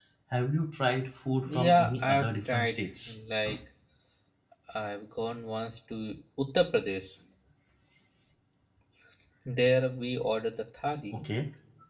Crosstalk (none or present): present